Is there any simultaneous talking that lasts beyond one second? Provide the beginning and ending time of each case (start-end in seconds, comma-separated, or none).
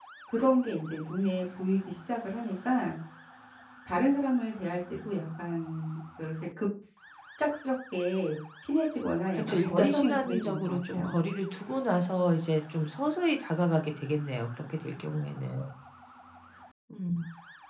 9.3-11.2